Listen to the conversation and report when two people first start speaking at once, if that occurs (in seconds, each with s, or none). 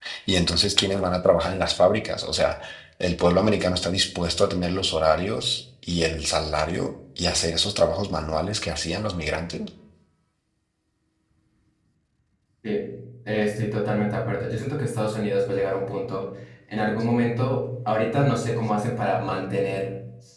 none